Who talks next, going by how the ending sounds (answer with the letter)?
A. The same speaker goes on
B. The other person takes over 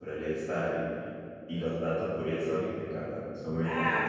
B